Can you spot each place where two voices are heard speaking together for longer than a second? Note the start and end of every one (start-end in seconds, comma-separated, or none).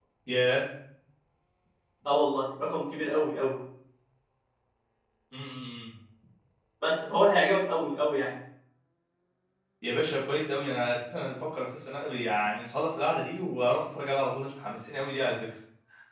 none